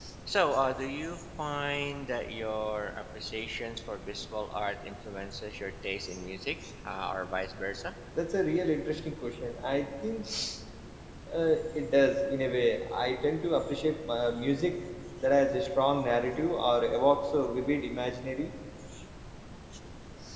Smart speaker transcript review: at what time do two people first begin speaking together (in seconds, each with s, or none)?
none